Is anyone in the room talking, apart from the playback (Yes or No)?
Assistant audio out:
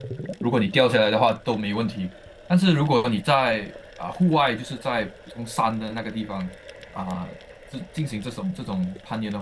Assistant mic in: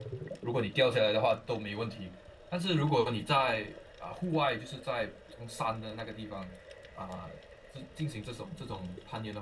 No